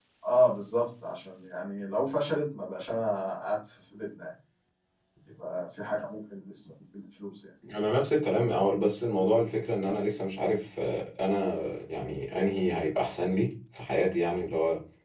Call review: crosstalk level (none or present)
none